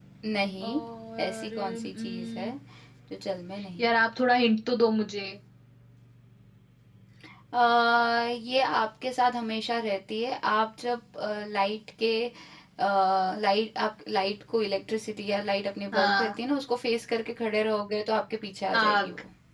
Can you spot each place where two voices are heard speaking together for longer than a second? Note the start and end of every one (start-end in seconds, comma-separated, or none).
1.2-2.5